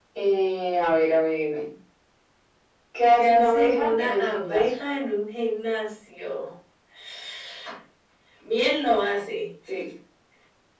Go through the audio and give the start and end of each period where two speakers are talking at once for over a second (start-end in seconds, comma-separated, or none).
3.2-4.7